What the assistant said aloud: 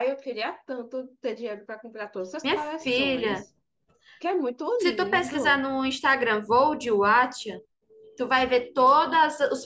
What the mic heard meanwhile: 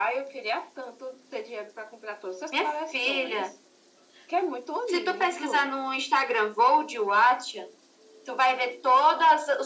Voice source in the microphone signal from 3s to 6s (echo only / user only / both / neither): echo only